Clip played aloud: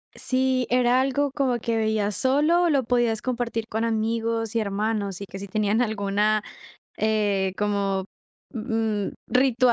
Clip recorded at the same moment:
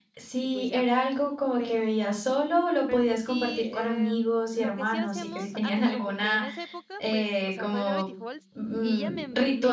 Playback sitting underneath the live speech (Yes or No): No